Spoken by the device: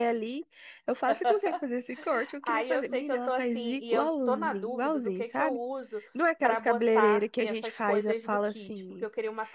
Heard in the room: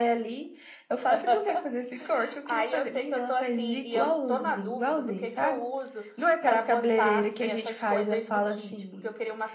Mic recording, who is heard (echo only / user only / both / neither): echo only